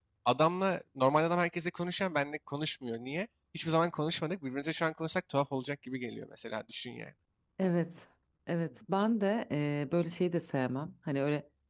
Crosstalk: none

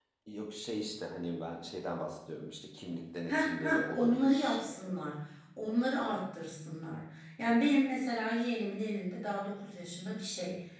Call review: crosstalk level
present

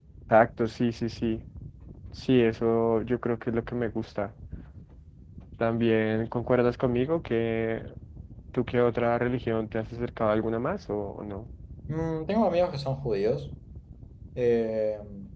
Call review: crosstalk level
none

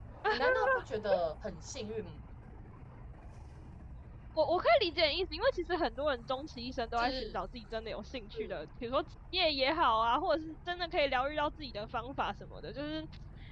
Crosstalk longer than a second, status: none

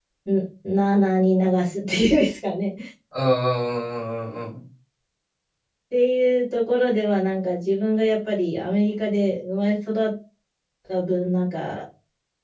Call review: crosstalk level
none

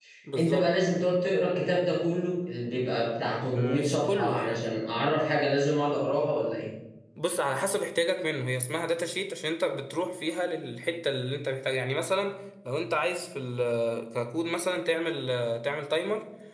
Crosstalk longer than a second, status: present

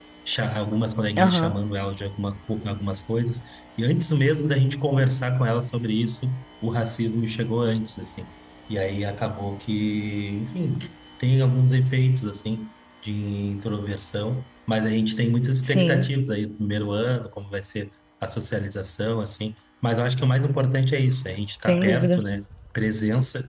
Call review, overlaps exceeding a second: none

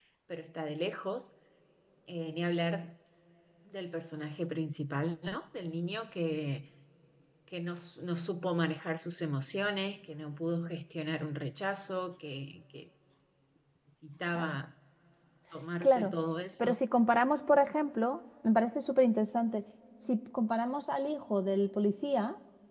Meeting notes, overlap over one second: none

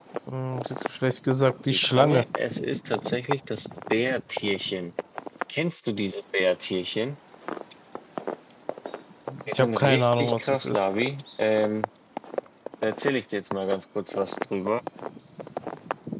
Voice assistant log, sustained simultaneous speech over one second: present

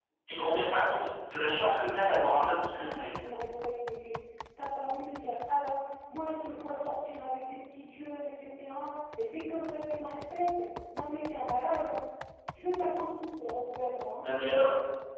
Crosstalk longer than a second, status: none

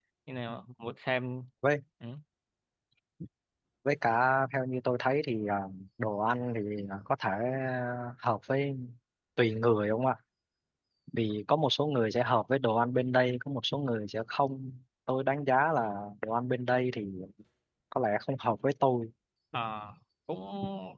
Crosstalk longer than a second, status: none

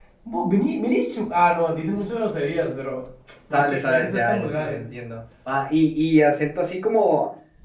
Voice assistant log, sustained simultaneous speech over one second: present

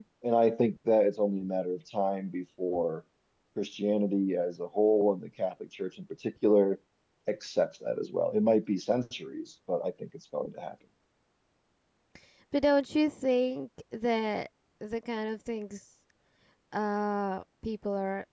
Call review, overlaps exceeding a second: none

